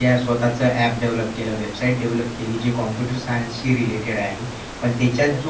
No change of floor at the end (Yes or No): Yes